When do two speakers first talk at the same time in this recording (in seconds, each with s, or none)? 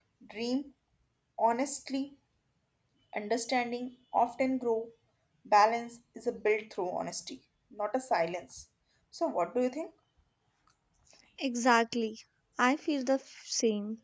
none